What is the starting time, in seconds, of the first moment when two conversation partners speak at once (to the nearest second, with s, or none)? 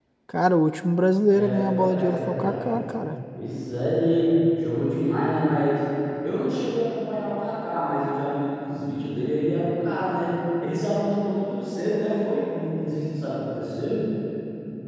1 s